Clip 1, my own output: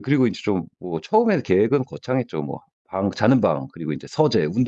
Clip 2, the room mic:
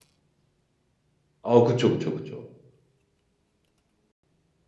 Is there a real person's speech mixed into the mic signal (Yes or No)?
Yes